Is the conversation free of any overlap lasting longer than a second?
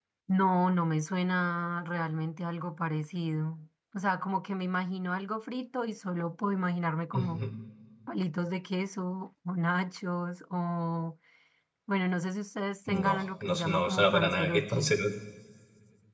No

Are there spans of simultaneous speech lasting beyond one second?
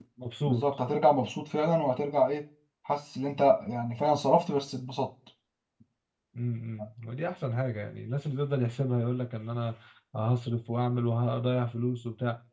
No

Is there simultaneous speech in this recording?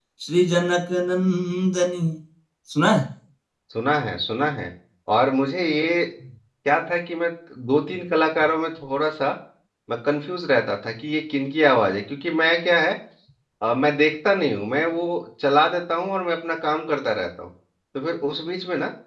No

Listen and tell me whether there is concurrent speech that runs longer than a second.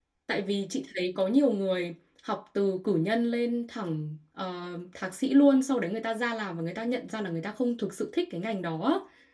No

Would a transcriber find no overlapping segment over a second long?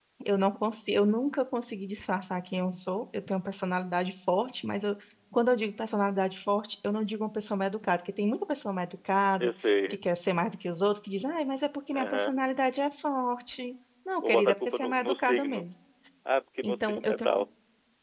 No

